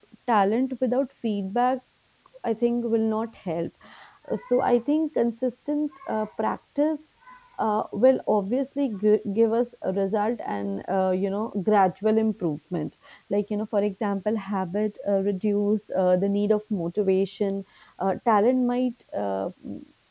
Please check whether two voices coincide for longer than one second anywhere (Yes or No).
No